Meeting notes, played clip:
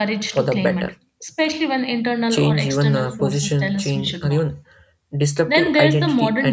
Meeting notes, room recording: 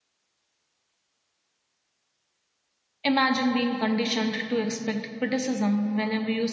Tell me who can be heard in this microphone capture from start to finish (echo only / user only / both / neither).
user only